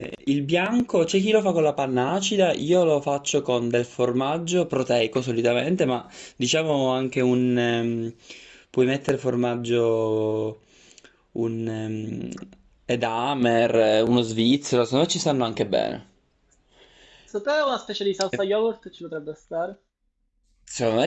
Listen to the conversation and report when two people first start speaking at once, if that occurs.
none

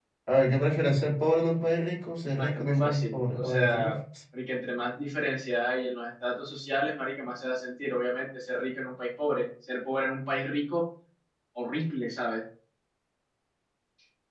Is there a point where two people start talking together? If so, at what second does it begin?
2.4 s

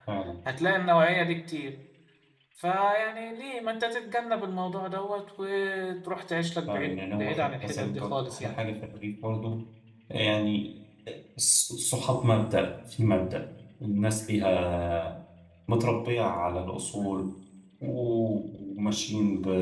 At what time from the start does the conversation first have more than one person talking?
6.7 s

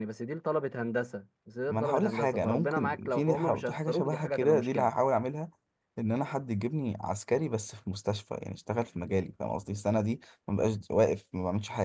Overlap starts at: 1.7 s

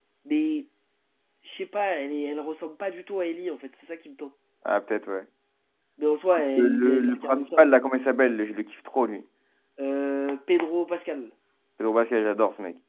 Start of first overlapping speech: 6.6 s

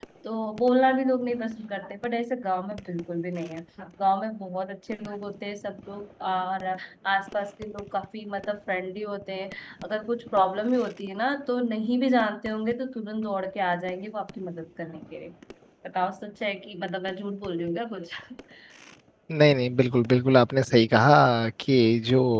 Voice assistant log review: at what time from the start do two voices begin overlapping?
none

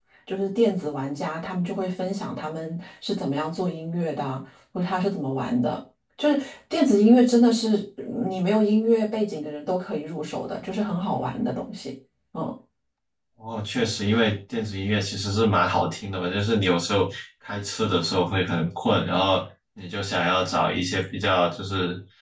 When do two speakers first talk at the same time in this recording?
none

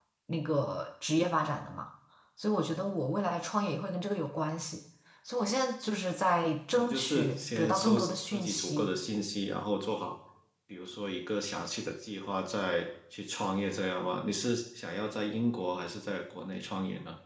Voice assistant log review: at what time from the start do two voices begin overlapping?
6.8 s

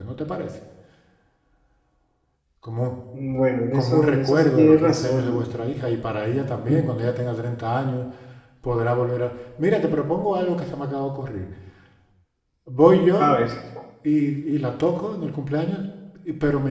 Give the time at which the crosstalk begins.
3.7 s

